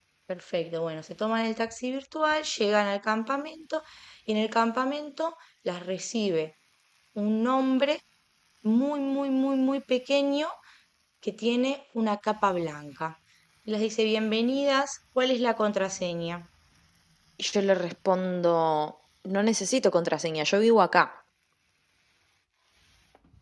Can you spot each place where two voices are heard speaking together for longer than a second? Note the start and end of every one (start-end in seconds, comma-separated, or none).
none